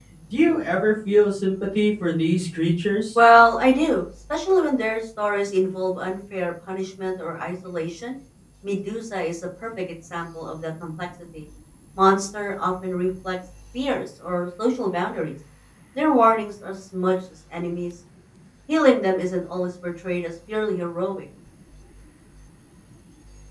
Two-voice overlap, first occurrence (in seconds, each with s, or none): none